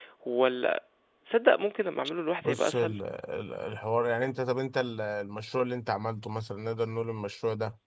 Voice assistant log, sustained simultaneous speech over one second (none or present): none